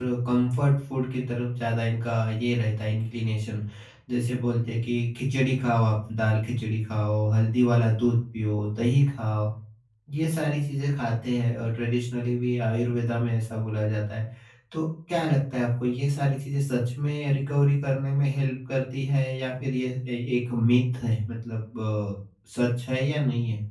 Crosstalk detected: No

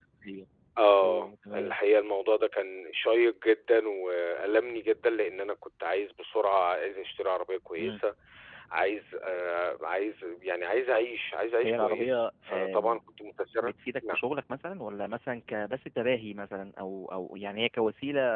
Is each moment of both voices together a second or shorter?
No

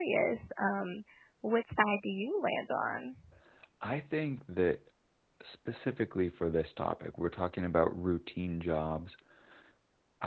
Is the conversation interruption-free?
Yes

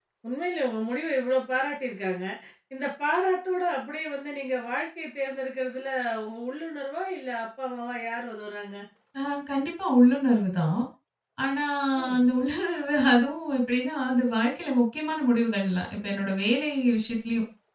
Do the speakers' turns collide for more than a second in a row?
No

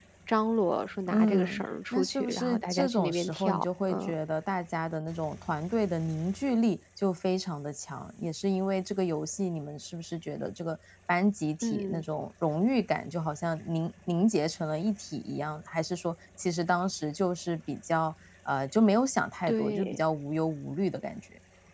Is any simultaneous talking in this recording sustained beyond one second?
Yes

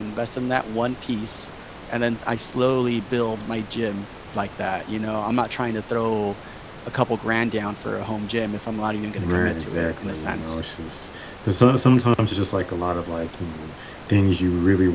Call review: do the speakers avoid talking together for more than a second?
No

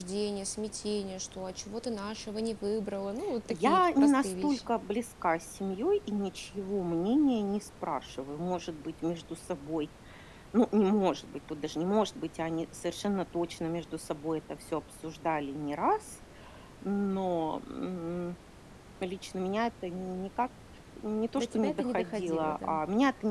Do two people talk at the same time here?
Yes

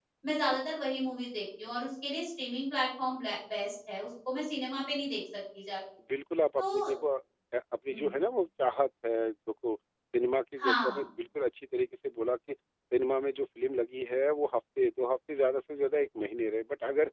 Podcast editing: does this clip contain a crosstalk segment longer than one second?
No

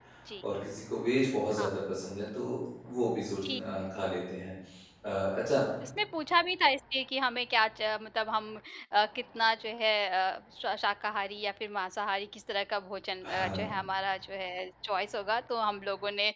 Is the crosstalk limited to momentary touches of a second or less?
Yes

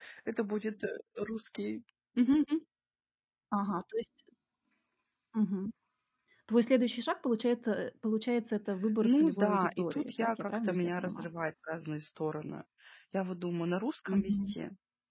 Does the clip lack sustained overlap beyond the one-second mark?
No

